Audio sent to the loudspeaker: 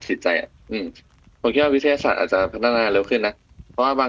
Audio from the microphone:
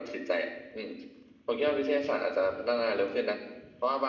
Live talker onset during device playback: none

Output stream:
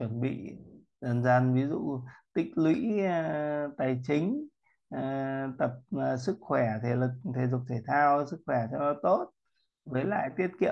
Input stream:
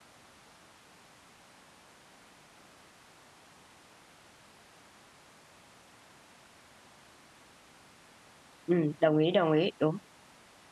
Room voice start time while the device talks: 8.6 s

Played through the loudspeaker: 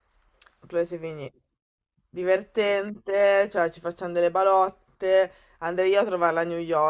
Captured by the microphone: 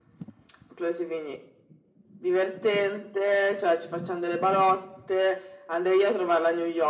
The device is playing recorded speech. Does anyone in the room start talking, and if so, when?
none

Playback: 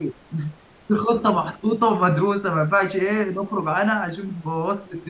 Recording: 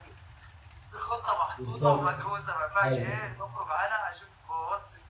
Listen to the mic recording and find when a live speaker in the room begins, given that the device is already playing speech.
1.6 s

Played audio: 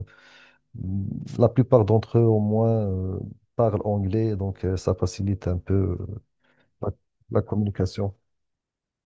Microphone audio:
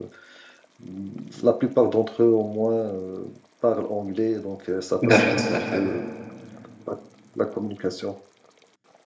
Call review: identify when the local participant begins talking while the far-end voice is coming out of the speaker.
5.0 s

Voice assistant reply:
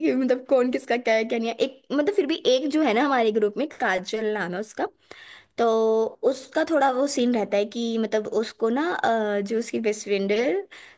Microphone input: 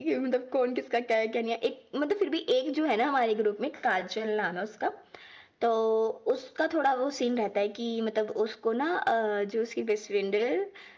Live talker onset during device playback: none

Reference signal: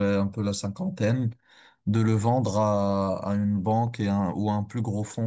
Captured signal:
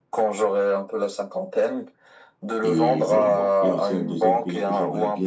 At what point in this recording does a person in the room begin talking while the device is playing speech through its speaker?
2.6 s

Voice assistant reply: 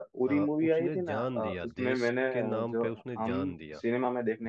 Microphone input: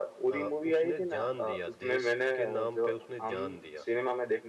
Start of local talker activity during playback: none

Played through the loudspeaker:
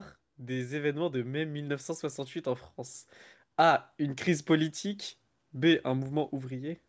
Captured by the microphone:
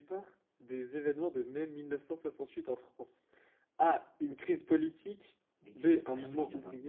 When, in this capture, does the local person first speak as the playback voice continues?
5.6 s

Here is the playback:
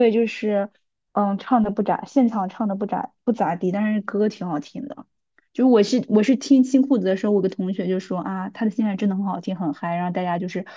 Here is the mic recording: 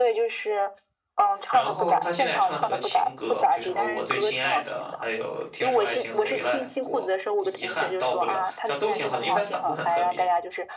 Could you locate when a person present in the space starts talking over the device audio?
1.5 s

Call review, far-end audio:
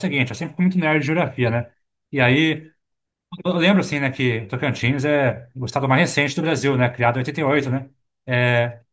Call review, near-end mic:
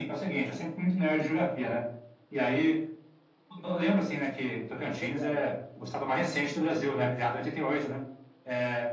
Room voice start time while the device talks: 5.0 s

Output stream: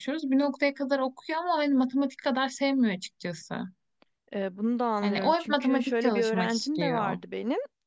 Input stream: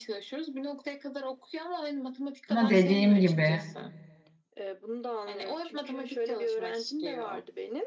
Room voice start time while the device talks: 2.5 s

